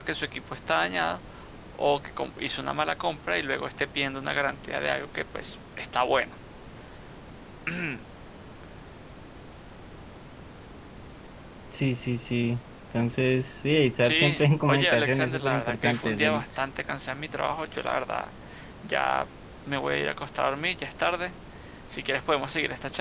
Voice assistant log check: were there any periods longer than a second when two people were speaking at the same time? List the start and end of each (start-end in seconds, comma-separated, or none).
14.0-16.7